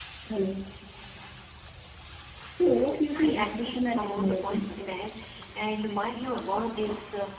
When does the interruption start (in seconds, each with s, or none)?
2.6 s